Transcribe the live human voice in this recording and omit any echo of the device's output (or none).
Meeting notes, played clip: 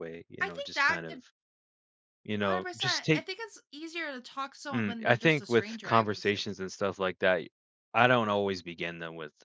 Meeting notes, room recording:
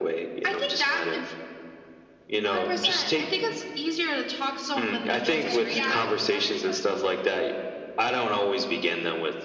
Okay, yeah, that makes sense.